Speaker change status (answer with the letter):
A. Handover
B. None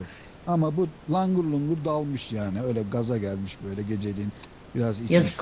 A